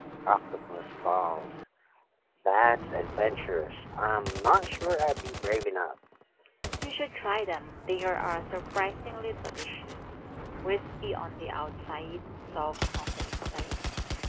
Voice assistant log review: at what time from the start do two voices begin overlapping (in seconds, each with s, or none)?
none